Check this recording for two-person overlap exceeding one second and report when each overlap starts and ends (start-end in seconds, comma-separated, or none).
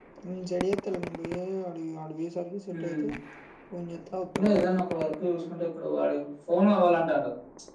none